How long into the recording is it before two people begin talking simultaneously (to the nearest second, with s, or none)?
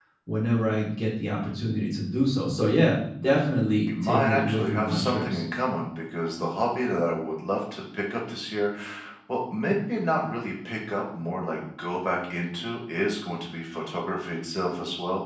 4 s